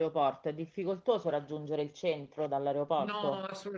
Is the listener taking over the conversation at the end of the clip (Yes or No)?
Yes